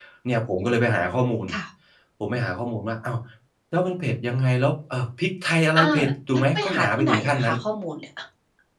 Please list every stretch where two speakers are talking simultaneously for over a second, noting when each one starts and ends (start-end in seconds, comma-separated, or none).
6.3-7.5